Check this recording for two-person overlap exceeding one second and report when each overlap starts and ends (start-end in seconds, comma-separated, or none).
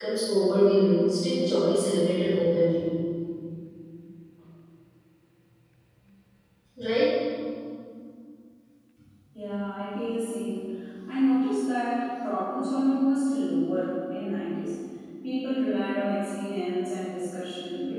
none